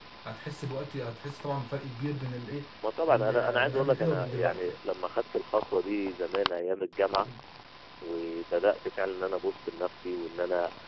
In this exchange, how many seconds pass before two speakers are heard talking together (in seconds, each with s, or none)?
3.1 s